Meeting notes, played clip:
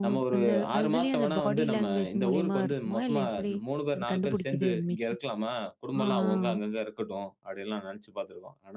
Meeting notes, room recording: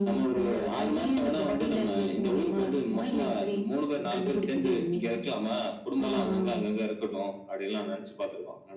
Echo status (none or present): present